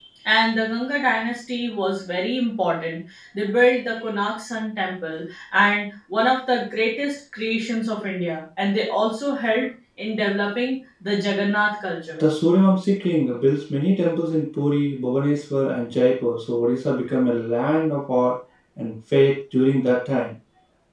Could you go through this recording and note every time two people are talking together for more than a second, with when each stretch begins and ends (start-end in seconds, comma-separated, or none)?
none